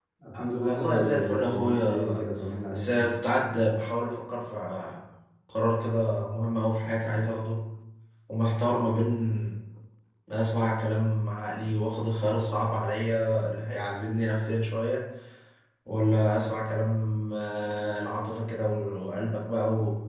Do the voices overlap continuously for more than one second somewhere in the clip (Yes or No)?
Yes